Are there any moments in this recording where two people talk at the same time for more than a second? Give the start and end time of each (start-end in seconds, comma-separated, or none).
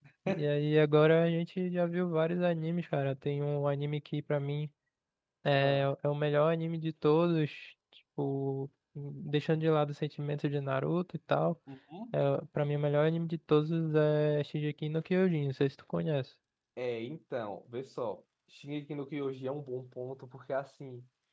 none